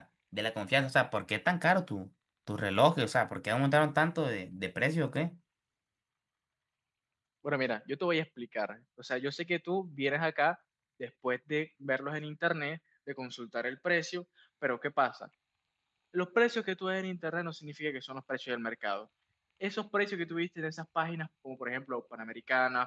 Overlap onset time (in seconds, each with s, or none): none